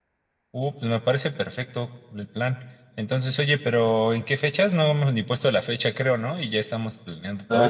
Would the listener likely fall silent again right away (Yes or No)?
No